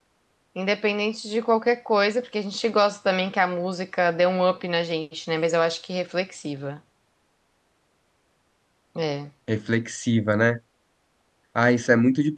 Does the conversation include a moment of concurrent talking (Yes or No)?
No